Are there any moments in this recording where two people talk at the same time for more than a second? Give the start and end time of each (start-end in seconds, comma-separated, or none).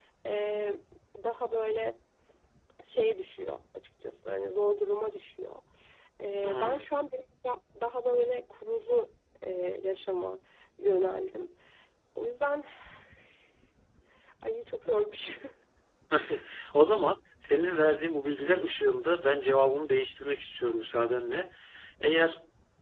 none